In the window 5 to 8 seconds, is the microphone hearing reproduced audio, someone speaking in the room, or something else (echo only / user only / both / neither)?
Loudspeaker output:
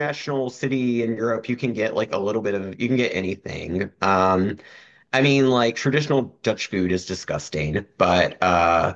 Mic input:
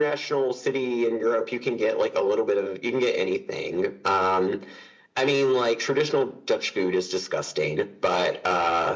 echo only